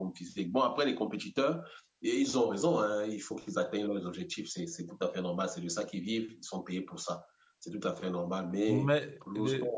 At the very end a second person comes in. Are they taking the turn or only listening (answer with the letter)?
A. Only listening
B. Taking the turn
B